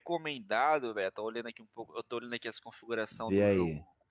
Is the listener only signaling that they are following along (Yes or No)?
Yes